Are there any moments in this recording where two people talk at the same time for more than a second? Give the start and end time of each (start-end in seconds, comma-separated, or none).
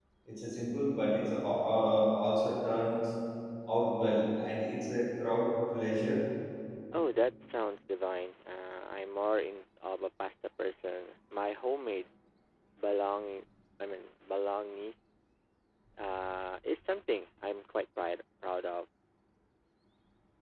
none